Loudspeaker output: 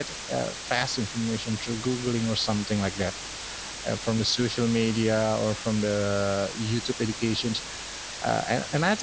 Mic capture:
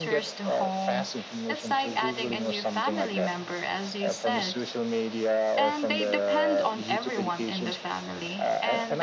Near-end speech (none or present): present